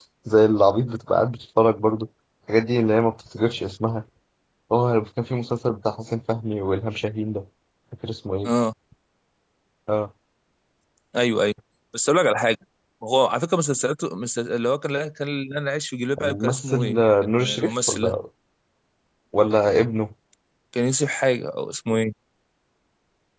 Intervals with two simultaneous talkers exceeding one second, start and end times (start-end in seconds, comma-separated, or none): 16.2-18.1